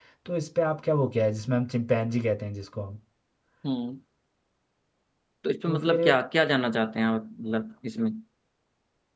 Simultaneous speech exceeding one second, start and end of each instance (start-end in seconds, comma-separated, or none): none